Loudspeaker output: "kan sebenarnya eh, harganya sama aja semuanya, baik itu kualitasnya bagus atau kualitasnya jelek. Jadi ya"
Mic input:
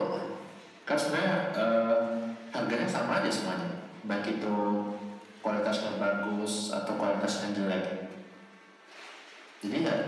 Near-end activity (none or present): none